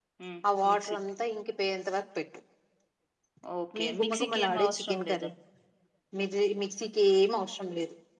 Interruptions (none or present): present